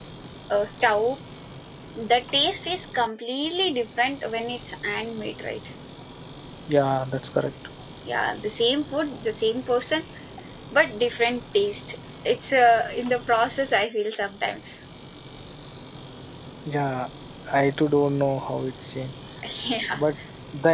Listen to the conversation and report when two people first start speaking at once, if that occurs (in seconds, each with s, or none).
none